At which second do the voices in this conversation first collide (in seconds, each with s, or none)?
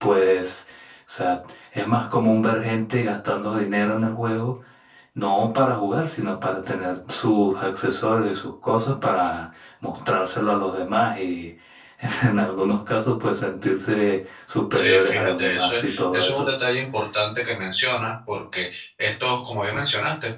14.7 s